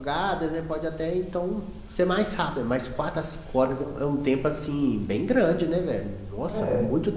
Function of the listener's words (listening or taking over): taking over